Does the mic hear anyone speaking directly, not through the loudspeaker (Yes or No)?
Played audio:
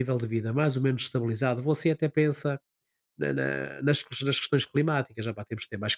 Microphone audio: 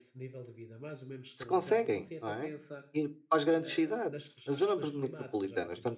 Yes